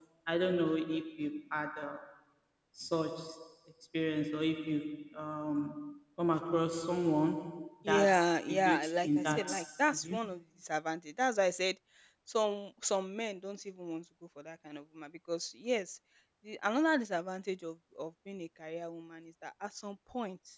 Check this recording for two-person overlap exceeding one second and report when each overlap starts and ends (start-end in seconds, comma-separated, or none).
7.9-9.5